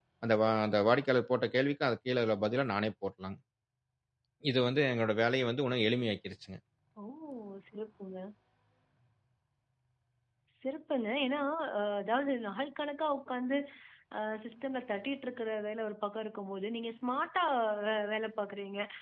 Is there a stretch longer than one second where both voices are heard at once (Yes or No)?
No